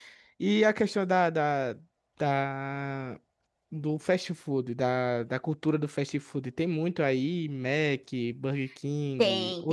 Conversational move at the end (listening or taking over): taking over